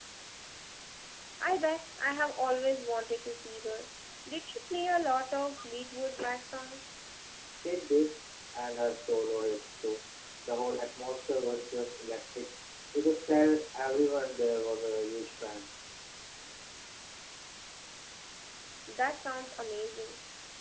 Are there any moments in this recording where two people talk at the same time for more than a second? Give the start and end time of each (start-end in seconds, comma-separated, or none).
none